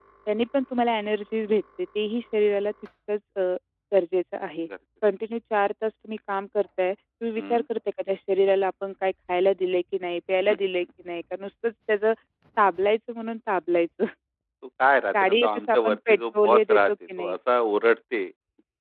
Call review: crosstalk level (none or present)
present